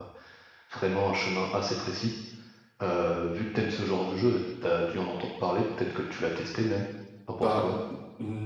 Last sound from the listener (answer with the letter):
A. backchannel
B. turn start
B